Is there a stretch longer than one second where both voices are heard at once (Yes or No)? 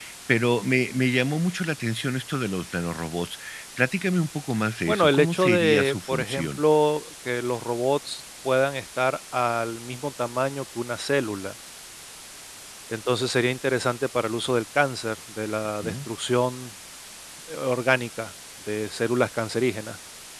Yes